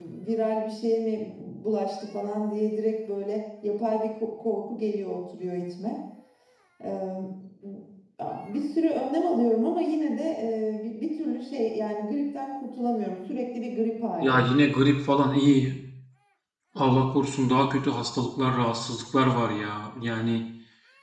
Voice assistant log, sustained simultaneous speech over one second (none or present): none